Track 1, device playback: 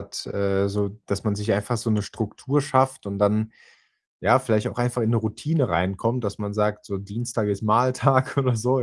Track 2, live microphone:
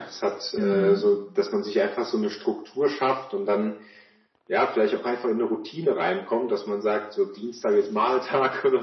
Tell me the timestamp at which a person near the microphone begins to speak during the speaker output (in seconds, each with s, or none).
0.6 s